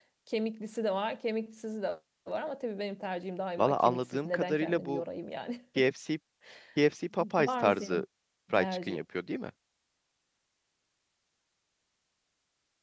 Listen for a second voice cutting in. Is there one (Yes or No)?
Yes